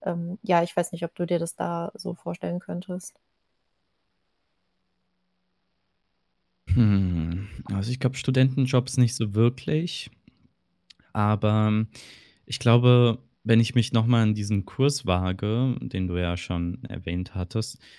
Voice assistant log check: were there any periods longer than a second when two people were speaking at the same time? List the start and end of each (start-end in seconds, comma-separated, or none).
none